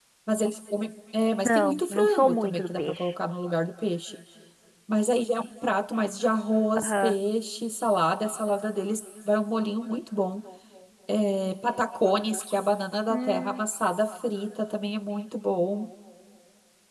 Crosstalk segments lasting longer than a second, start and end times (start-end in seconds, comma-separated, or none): 1.4-3.1